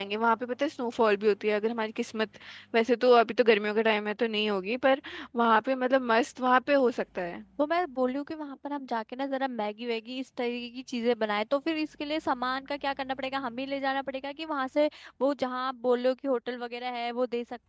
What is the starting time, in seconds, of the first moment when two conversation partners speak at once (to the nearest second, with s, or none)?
none